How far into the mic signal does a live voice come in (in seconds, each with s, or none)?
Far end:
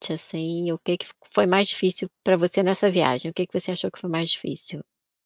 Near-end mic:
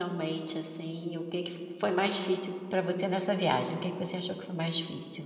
none